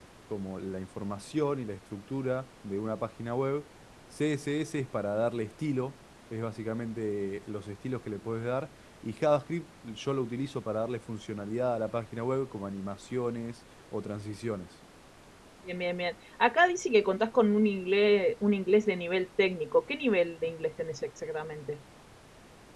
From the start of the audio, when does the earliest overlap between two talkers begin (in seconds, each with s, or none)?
none